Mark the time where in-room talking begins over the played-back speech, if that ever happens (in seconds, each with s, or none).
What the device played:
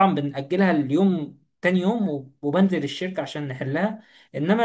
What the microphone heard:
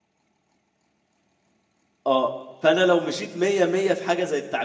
2.1 s